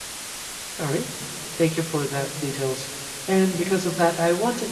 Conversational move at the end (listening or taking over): listening